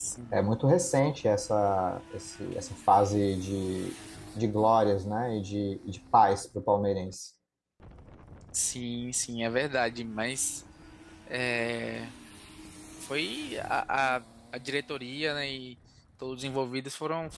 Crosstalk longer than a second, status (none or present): none